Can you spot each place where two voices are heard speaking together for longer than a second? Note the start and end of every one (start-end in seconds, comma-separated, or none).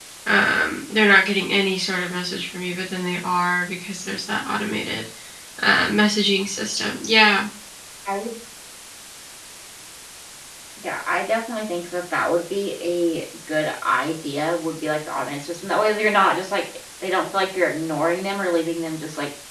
none